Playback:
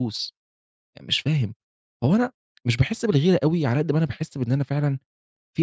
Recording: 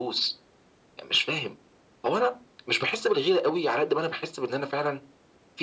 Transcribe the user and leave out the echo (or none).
none